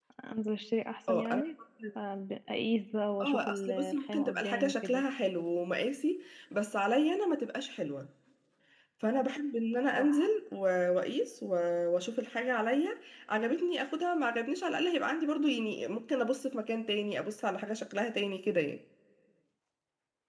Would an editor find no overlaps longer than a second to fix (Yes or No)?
No